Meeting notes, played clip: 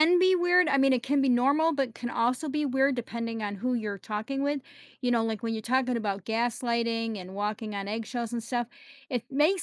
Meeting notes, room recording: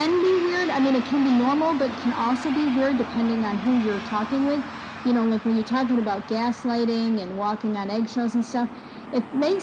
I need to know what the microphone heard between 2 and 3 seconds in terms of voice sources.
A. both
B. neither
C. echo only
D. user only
C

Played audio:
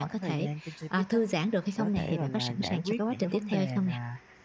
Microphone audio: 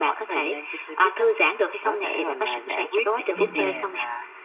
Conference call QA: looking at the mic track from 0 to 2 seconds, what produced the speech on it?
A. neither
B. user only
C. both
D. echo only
D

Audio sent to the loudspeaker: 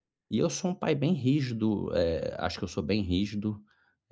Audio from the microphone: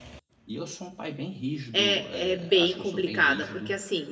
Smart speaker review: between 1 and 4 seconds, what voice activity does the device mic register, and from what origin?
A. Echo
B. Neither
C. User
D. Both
D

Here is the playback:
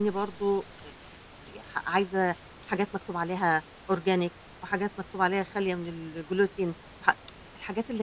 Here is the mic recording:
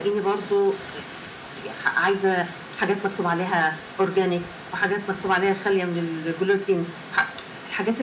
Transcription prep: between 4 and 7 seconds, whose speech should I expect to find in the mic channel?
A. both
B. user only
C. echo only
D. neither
C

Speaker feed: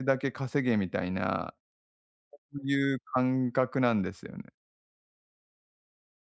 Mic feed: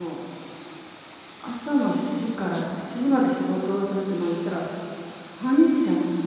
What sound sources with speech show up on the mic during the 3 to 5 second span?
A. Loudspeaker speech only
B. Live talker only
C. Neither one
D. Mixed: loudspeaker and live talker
B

